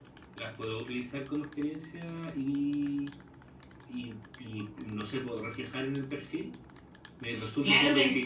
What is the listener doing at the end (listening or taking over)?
taking over